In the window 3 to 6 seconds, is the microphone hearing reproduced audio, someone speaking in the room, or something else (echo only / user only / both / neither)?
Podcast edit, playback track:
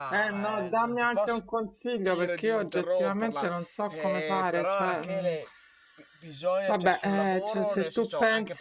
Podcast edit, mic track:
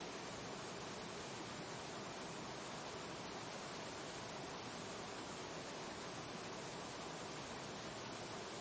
neither